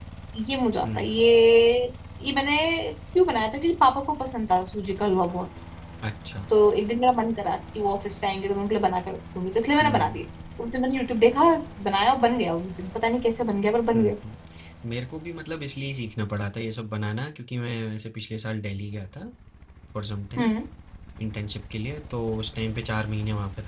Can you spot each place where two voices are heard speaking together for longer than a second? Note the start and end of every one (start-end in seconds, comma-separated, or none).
none